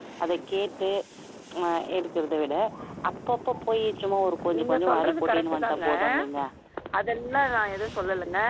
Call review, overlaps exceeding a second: present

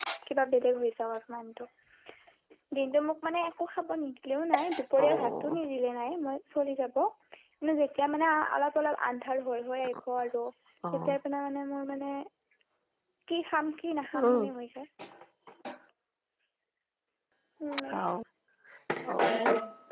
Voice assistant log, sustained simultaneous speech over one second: none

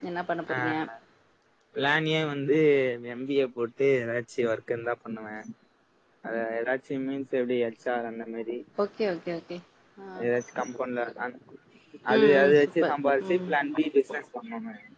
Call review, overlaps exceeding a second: present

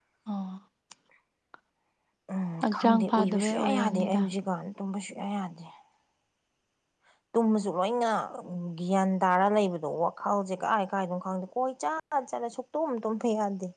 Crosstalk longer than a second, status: present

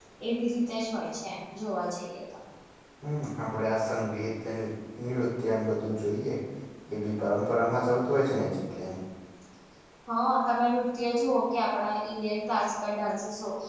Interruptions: none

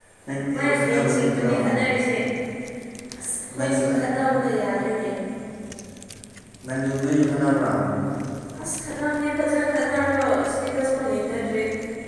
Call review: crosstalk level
present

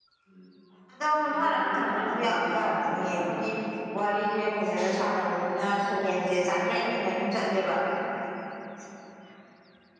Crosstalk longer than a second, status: present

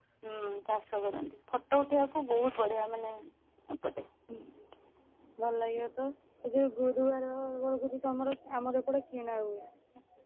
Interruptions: none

